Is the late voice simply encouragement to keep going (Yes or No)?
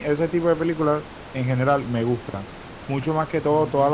Yes